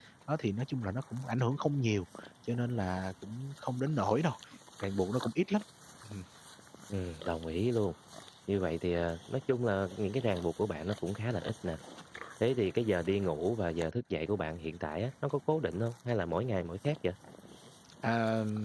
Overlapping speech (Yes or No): No